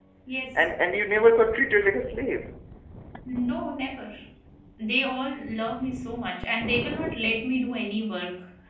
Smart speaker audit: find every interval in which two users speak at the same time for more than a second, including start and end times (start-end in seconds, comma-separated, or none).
none